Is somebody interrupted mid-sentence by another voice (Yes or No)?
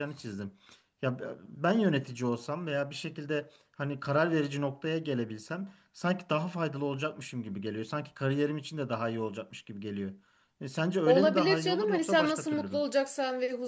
Yes